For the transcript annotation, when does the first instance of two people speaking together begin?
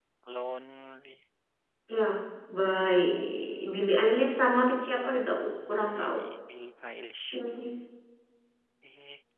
5.0 s

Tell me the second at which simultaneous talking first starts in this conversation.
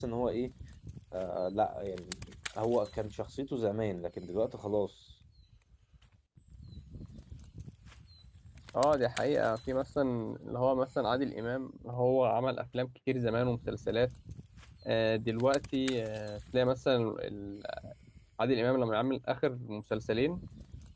none

